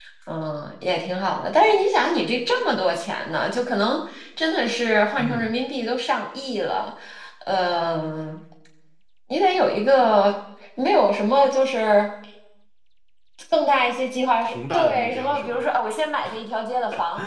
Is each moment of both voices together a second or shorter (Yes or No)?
No